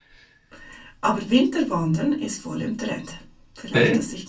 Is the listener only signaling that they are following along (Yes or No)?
Yes